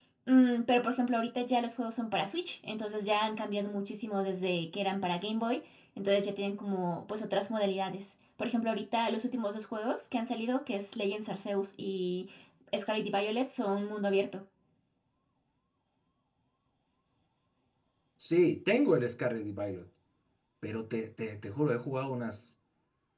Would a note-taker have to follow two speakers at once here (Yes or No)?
No